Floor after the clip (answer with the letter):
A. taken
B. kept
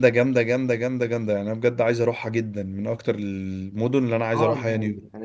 A